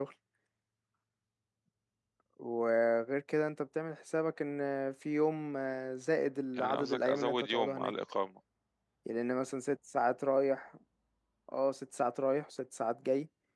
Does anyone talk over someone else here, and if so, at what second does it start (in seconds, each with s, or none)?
6.5 s